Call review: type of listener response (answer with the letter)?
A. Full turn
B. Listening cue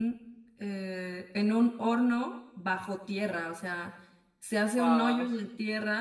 B